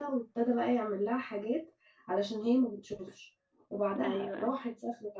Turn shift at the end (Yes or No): No